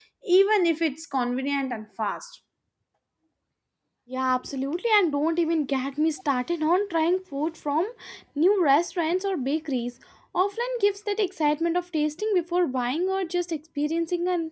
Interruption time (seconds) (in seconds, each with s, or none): none